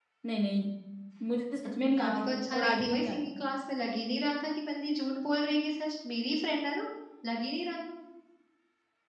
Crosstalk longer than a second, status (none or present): present